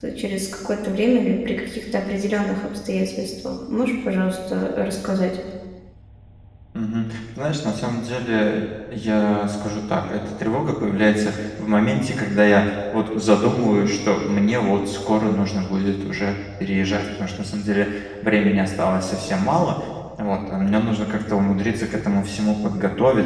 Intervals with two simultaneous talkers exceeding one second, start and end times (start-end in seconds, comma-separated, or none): none